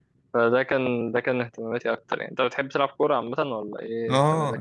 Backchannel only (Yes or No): No